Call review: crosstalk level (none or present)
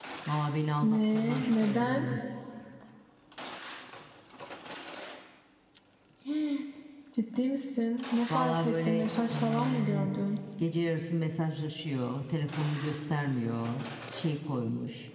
present